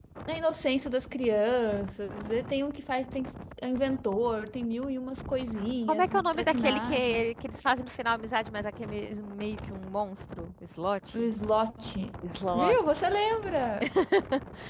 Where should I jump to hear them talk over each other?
6 s

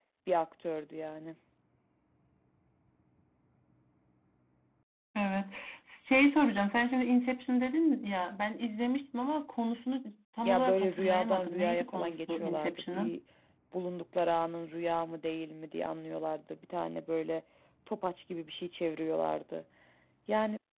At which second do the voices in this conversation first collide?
10 s

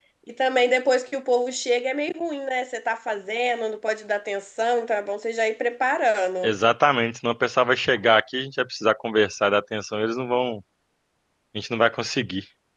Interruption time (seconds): none

